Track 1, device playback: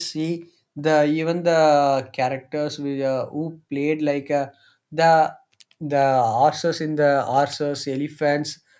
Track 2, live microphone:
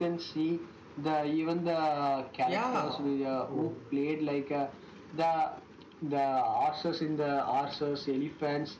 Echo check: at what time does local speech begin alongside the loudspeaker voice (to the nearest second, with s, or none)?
2 s